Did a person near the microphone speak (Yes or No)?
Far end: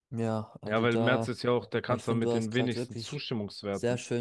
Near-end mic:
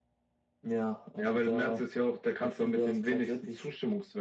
No